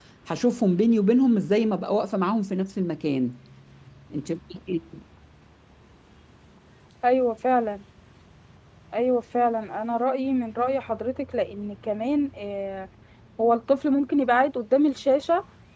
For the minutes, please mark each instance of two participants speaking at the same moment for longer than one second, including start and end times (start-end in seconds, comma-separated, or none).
none